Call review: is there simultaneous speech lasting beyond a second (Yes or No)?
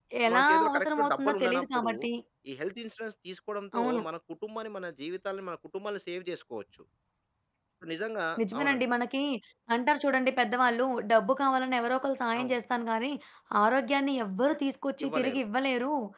Yes